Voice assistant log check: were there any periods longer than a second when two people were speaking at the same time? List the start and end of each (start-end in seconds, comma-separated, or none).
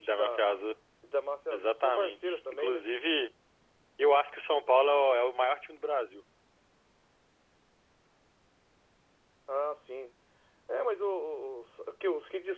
1.5-2.8